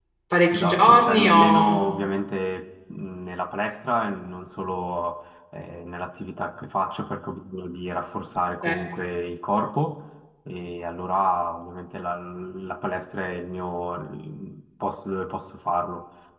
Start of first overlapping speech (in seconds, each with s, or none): 0.5 s